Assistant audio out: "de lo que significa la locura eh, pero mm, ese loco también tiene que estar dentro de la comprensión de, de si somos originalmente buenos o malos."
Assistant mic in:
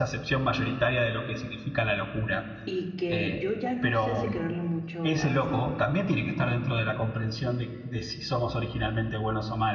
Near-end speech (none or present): present